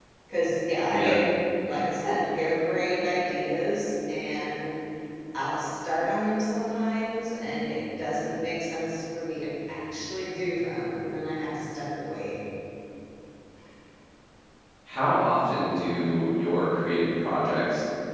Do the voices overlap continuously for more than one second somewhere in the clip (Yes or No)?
No